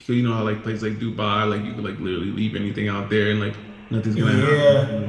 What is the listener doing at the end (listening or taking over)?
taking over